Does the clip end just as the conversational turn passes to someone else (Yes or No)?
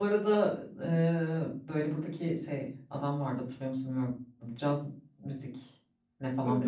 Yes